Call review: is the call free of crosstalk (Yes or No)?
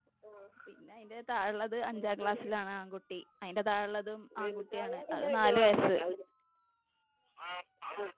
No